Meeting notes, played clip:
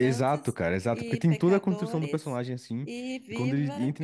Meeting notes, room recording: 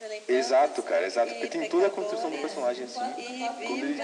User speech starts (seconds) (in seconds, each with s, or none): 2.3 s